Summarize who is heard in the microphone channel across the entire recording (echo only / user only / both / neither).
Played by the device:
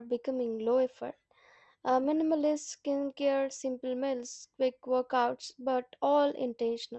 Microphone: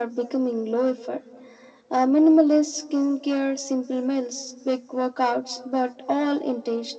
echo only